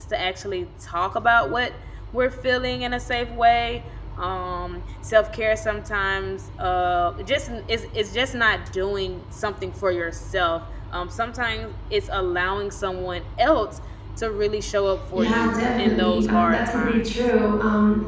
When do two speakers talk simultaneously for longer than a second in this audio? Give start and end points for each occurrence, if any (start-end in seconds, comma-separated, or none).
15.1-17.1